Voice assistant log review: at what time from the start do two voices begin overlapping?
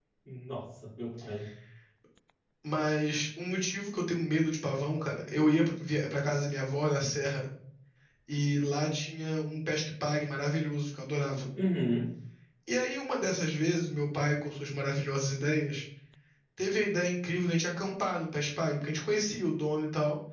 none

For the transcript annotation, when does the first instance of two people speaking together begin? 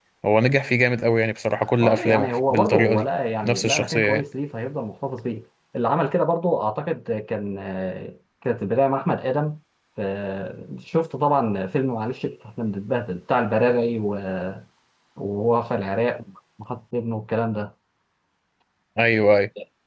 1.8 s

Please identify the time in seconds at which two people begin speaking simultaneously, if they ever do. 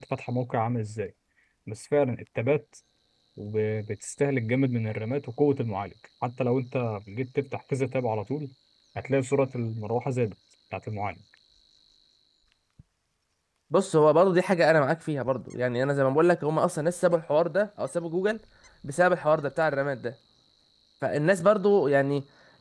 none

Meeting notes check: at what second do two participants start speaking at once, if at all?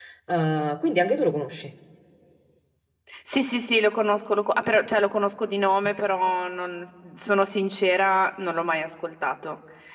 none

